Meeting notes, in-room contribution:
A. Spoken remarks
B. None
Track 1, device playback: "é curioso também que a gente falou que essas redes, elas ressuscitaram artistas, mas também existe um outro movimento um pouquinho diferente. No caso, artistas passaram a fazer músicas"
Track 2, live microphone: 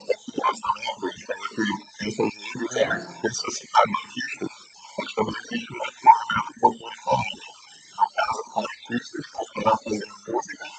A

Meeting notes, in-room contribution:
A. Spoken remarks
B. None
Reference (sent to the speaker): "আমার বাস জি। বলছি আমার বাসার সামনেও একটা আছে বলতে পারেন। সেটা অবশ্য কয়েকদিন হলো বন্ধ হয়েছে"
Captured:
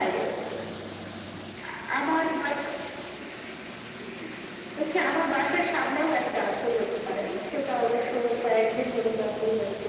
B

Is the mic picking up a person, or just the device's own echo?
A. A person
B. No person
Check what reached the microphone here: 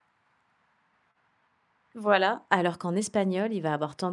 A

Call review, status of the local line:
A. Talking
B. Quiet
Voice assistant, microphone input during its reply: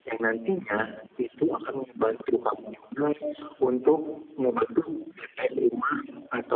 B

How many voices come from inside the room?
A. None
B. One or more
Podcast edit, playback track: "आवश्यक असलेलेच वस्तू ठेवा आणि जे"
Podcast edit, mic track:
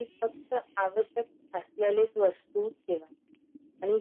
A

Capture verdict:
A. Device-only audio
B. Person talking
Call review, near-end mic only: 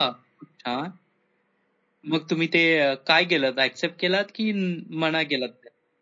A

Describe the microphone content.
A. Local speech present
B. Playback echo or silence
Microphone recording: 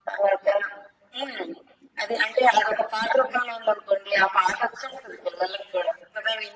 B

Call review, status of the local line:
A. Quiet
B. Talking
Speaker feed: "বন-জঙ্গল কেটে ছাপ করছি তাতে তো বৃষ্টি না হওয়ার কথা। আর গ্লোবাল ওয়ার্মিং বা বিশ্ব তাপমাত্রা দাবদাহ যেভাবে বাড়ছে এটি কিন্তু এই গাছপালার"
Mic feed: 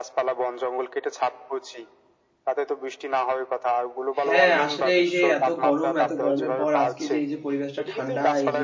B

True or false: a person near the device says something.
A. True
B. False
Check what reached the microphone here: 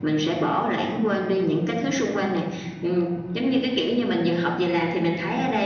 B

